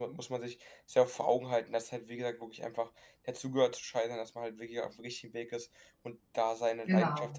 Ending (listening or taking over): listening